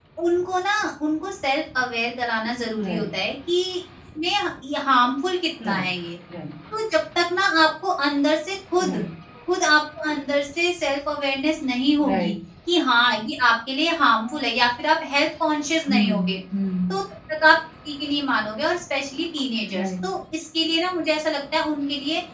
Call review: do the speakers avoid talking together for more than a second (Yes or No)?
Yes